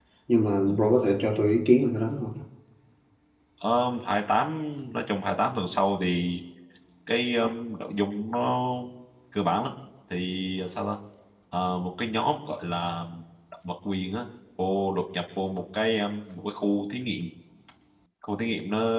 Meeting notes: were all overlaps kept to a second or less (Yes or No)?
Yes